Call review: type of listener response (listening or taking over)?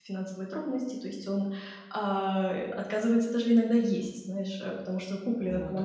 listening